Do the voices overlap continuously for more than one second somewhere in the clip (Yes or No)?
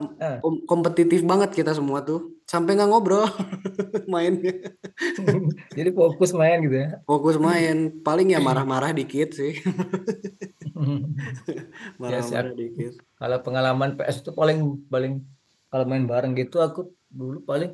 No